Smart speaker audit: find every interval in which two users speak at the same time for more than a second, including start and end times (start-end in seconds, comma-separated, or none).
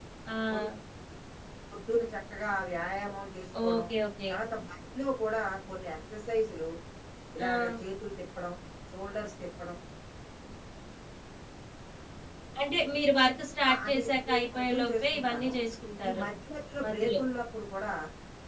13.7-15.5